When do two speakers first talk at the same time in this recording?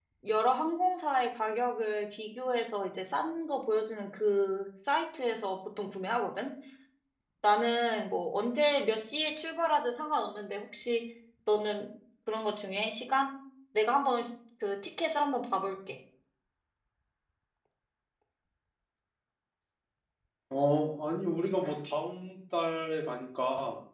none

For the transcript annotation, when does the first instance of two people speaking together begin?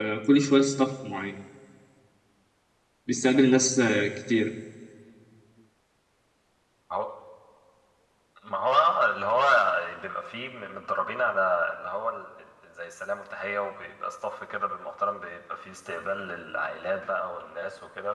none

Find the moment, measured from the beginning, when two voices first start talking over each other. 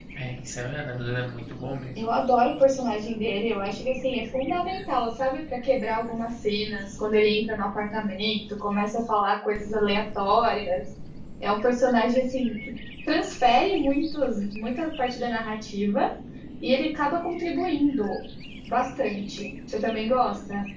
none

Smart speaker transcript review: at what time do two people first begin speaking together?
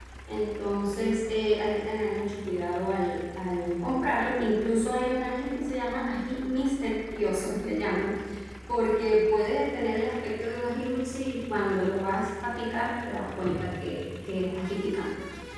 none

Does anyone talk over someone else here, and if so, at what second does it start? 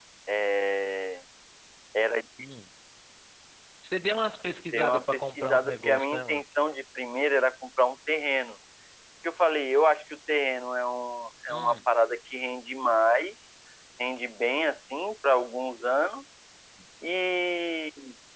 4.7 s

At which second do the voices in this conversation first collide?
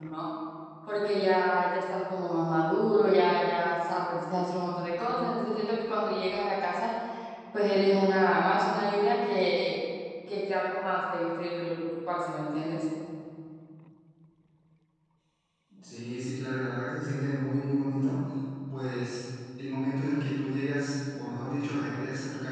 none

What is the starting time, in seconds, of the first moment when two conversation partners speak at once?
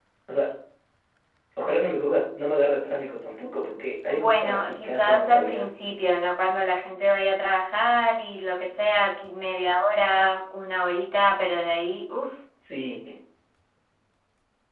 4.1 s

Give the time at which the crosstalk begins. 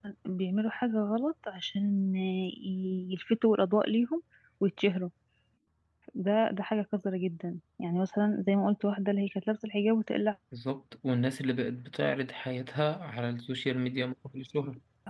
none

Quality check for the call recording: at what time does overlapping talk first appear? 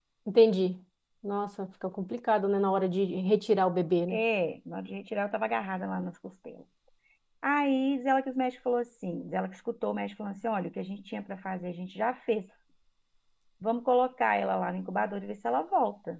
none

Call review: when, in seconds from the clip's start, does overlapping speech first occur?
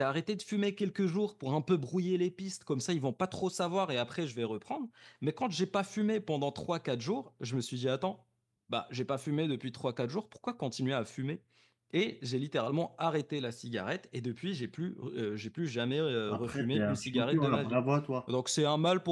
16.3 s

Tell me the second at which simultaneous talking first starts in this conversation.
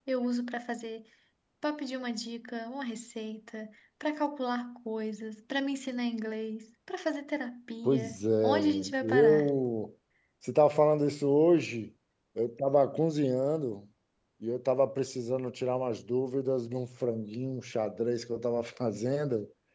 7.8 s

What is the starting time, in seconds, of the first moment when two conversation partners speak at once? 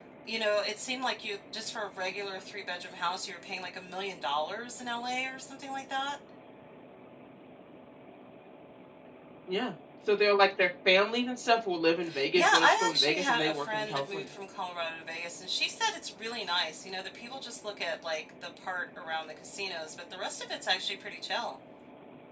12.1 s

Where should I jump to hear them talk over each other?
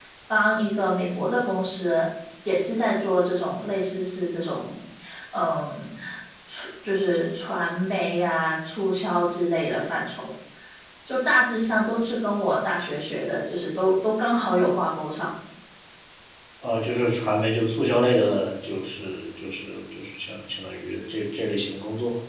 none

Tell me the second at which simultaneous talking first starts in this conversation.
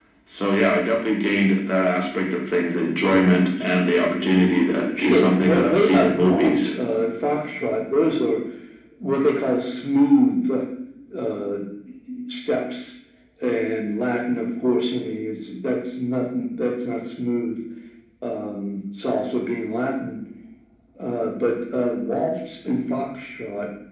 4.9 s

